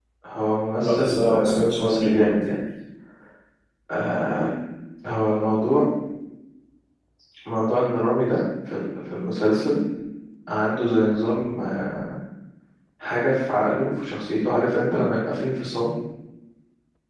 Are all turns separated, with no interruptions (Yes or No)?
No